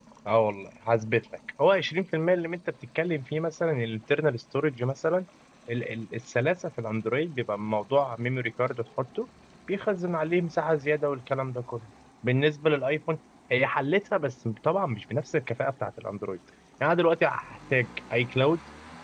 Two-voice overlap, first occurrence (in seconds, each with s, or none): none